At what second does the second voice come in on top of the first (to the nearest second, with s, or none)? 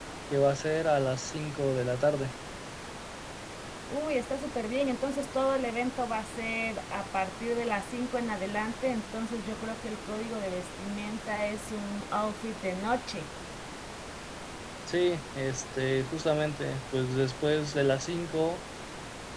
none